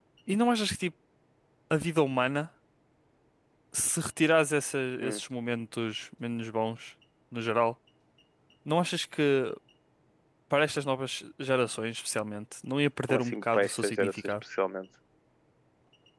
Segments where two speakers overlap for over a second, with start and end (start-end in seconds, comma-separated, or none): 13.0-14.3